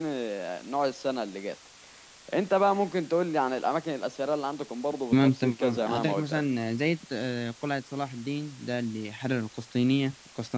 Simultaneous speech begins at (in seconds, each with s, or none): 5.1 s